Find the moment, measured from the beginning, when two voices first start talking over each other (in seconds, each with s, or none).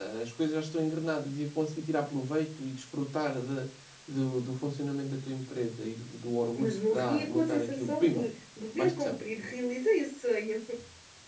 6.6 s